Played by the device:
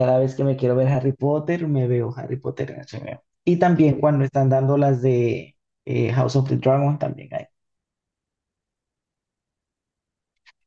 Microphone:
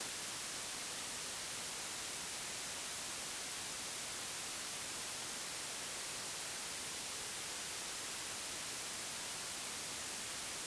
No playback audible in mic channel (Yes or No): Yes